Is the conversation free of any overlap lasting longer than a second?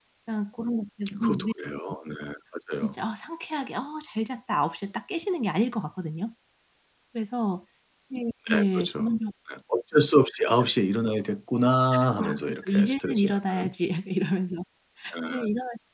No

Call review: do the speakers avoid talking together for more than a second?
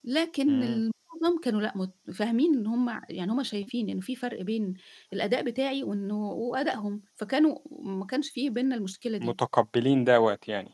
Yes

